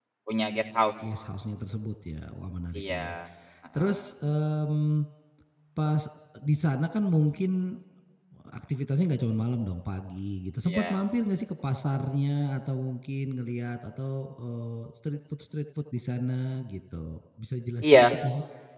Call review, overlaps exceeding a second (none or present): none